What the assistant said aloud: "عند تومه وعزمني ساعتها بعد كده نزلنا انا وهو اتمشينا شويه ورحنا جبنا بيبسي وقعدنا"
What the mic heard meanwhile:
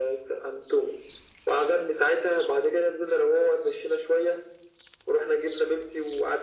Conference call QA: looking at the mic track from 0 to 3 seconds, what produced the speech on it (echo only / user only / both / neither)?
echo only